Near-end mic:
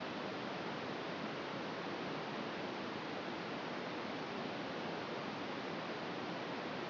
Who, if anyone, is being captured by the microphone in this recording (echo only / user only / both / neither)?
neither